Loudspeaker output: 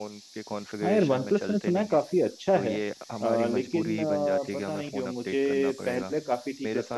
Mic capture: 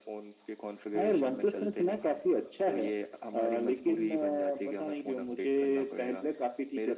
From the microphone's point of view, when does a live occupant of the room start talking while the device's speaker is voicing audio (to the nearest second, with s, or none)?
none